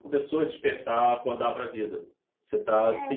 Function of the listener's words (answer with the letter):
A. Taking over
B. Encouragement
B